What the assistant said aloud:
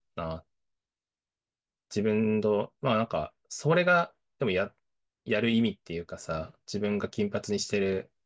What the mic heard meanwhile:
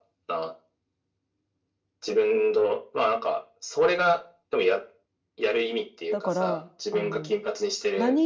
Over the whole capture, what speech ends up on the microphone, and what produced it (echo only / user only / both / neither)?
both